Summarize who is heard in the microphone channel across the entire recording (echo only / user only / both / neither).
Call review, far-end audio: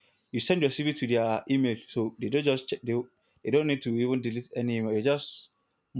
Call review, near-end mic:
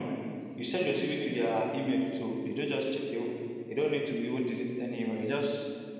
echo only